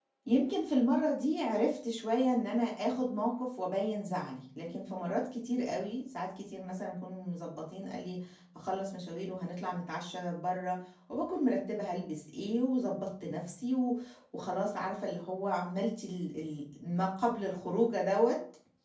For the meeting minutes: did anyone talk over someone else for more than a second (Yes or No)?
No